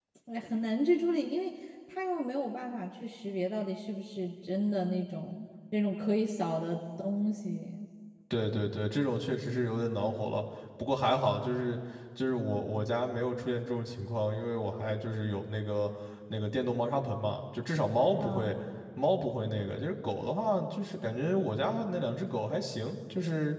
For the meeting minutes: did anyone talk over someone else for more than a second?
No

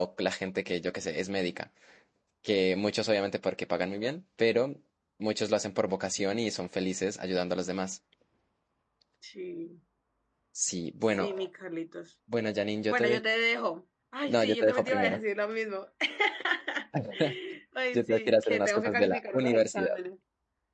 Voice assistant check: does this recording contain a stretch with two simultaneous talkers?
Yes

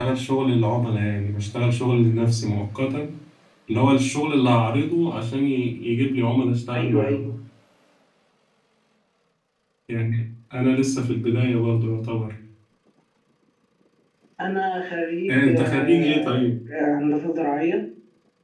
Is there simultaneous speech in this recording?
Yes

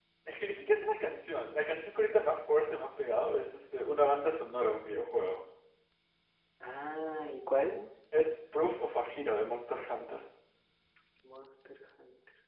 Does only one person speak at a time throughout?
Yes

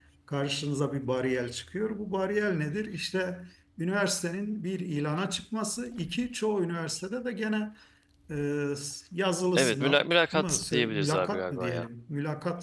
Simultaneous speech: Yes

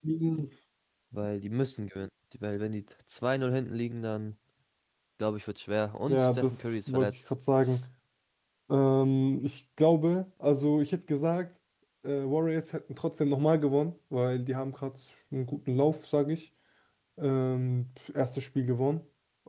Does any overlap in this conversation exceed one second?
Yes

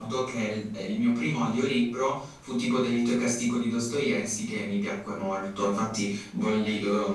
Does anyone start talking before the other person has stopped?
No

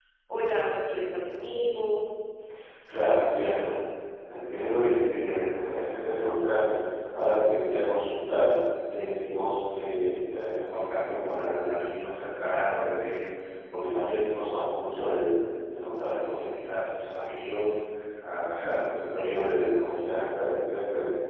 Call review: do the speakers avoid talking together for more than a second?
Yes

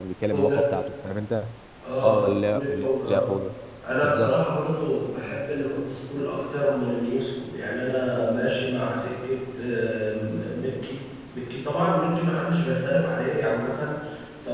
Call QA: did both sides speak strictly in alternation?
No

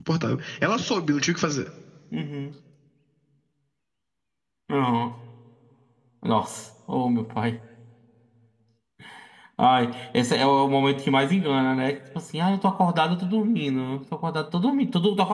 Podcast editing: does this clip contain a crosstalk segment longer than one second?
No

